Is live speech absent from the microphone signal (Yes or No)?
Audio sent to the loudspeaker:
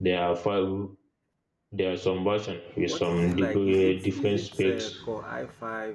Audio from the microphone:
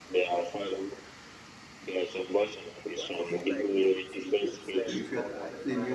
No